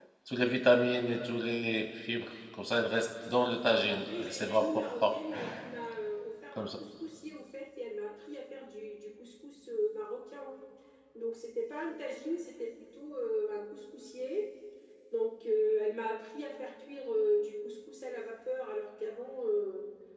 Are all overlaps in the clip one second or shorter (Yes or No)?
No